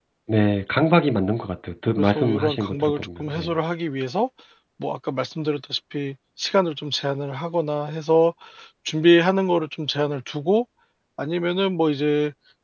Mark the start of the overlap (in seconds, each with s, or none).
2.0 s